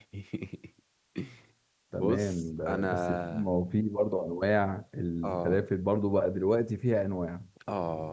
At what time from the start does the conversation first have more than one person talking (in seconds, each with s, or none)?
2.0 s